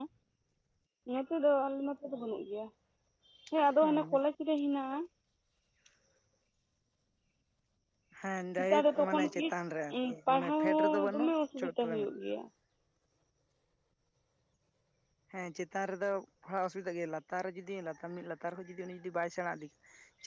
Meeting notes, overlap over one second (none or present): present